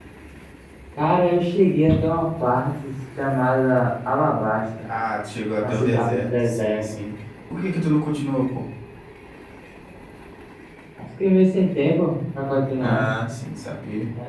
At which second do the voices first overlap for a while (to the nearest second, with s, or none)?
6 s